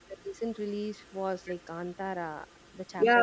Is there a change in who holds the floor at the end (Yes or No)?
Yes